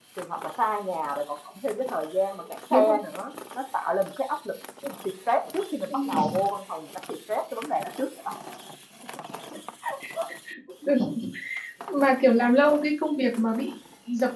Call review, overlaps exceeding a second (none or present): none